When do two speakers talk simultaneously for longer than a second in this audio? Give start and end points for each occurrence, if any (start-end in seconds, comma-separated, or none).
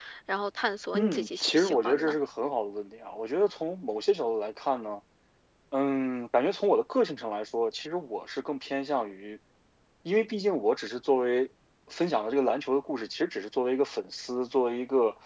0.9-2.2